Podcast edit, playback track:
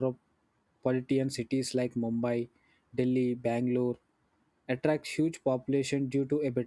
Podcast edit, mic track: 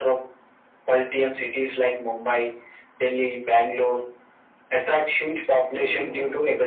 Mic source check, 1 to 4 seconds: echo only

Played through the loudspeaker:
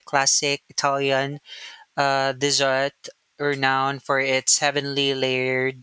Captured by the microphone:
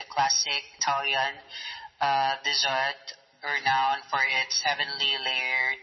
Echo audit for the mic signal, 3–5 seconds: echo only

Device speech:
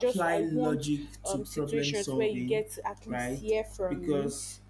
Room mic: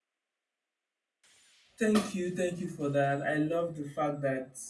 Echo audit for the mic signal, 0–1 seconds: neither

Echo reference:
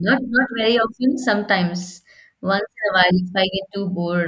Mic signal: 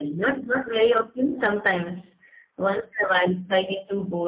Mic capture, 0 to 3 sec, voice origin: echo only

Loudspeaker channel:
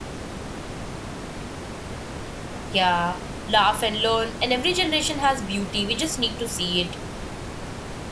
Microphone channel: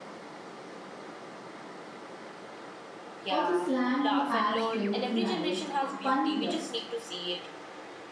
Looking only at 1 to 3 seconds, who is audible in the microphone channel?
neither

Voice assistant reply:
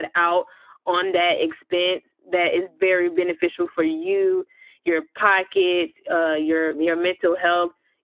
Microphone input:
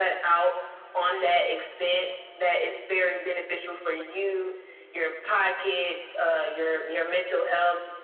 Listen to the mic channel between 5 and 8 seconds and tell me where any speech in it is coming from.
echo only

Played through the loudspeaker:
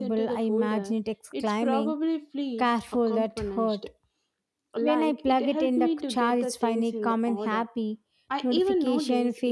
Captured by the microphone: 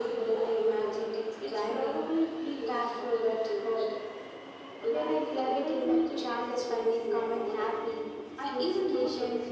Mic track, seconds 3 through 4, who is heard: echo only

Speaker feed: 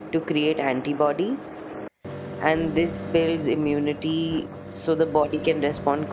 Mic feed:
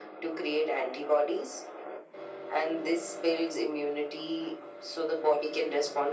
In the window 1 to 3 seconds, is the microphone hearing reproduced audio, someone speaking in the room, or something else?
echo only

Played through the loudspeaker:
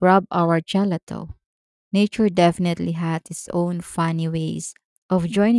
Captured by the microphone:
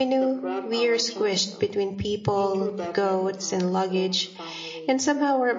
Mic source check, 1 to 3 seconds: both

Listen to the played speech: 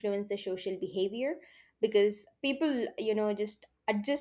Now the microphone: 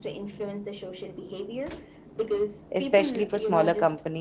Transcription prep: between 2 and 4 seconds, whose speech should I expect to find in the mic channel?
both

